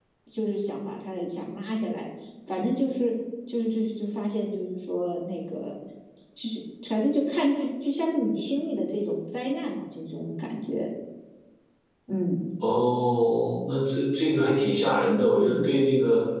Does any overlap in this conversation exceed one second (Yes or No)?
No